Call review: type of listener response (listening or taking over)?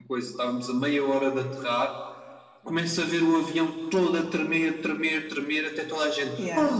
listening